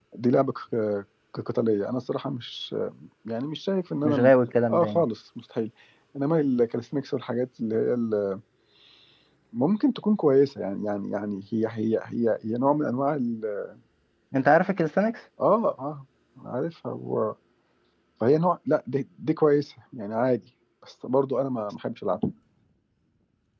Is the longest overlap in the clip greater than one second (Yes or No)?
No